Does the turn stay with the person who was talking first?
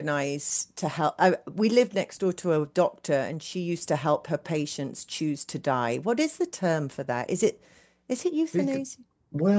No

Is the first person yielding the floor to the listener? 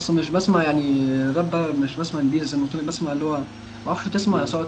No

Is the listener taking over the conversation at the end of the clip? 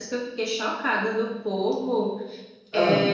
No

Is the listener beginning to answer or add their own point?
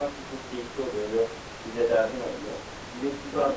No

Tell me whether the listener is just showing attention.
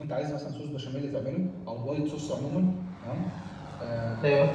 Yes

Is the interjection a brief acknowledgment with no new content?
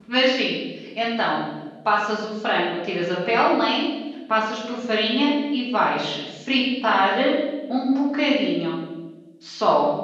No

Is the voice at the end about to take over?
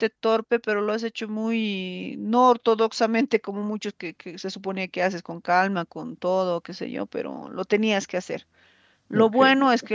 No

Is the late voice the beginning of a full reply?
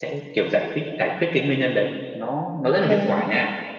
No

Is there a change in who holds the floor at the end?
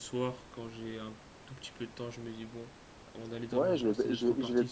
Yes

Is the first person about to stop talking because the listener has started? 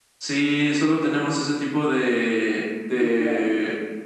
No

